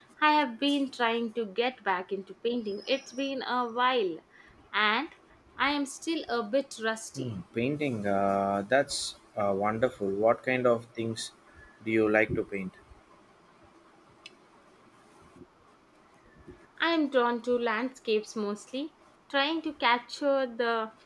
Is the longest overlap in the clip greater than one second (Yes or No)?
No